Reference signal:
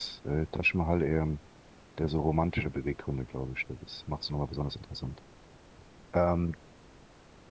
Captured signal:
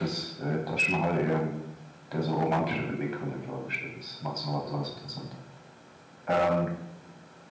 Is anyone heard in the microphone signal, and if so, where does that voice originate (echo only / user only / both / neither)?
echo only